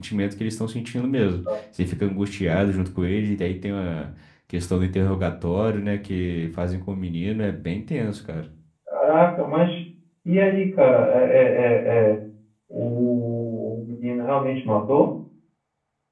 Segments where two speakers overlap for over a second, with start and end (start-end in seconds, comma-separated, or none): none